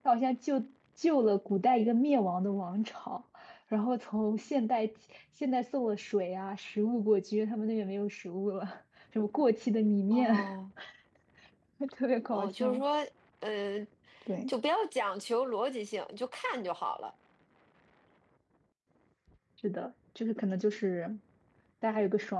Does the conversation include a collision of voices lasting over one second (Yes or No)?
No